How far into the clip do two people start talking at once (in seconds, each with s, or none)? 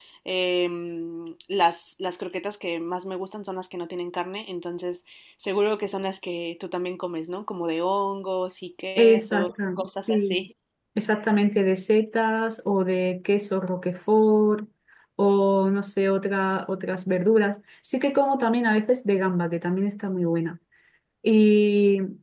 9.0 s